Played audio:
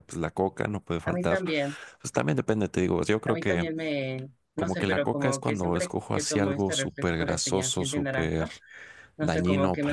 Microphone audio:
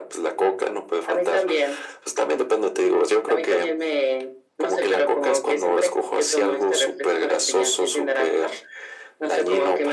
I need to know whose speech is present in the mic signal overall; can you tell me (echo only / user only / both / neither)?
echo only